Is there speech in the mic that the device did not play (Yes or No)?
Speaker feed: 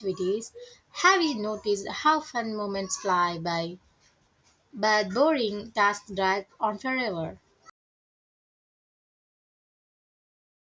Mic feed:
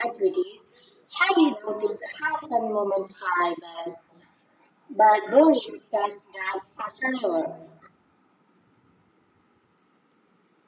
No